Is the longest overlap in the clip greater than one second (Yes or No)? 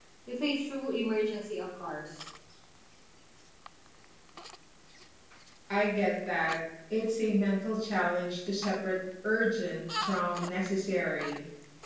No